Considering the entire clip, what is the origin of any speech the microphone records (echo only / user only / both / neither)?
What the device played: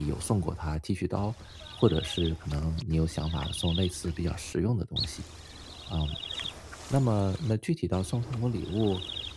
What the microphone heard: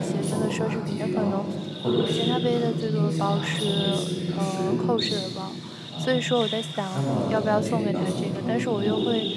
both